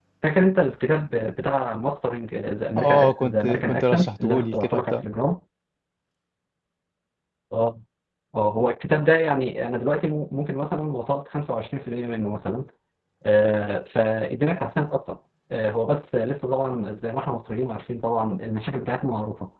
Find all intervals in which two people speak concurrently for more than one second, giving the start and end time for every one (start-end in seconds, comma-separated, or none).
2.8-5.0